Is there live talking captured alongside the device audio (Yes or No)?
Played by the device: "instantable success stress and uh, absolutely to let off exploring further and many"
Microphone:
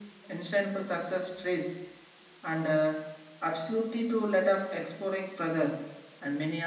No